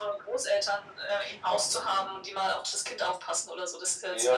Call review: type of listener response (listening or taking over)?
taking over